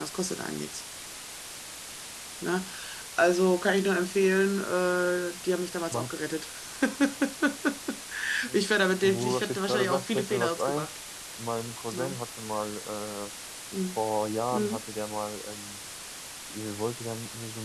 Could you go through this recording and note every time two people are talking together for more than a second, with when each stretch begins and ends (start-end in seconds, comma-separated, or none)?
9.0-10.9